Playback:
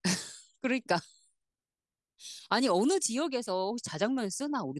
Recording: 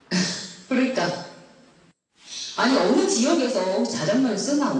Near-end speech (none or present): none